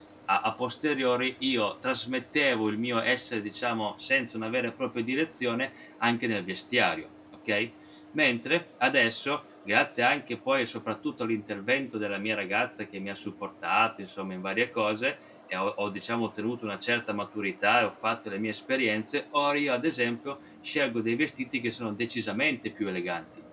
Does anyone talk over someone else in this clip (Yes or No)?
No